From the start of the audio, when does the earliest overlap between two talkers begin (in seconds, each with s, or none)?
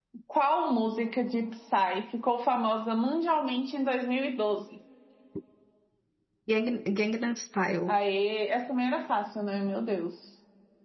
none